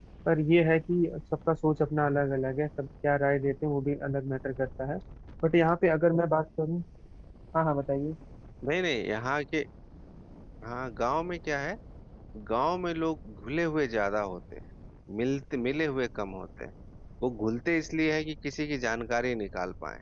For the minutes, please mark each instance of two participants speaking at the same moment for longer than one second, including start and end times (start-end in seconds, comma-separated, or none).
none